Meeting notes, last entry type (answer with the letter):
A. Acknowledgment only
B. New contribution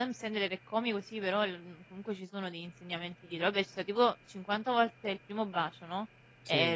A